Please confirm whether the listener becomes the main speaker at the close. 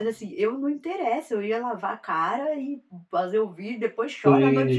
No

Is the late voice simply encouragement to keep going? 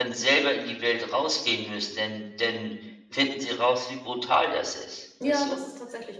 No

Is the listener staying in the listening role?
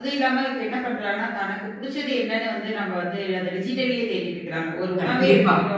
Yes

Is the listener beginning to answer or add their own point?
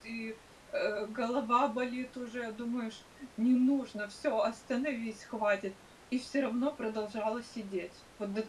Yes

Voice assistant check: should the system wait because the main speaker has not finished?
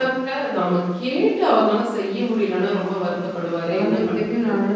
No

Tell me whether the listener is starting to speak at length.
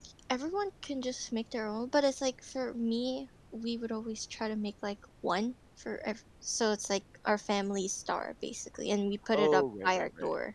Yes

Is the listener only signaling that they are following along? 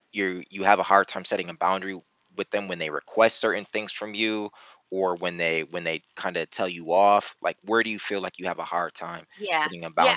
No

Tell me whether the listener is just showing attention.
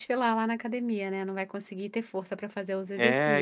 No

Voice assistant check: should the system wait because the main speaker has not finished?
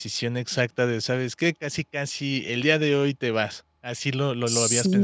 No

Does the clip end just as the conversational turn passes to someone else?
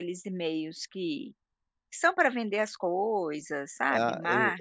Yes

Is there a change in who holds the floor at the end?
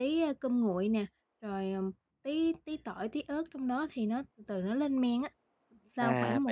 Yes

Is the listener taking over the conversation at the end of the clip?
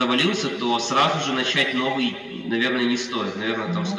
No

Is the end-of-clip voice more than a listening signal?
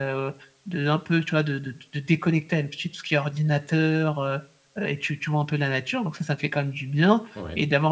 No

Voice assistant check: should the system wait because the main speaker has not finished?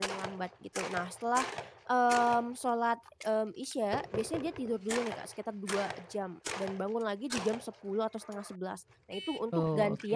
Yes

